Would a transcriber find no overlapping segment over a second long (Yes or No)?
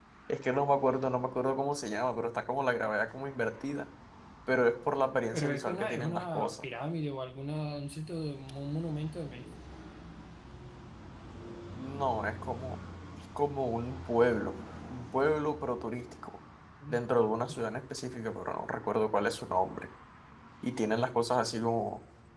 No